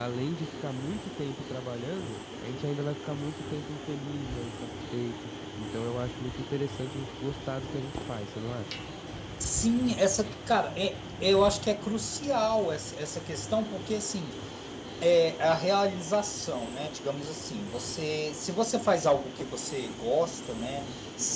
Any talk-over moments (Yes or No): No